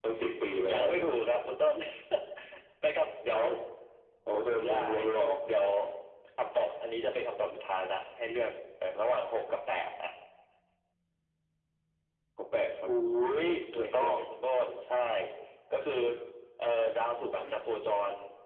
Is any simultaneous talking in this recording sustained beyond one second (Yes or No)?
No